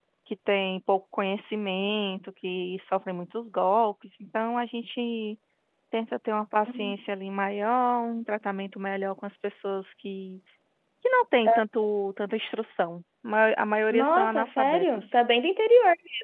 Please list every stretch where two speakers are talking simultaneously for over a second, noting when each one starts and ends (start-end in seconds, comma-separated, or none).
13.9-15.1